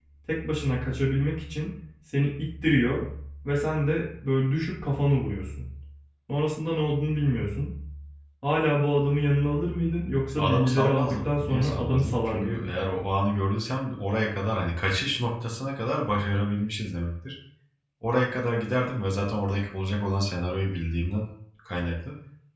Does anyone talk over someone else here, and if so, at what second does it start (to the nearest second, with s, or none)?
10 s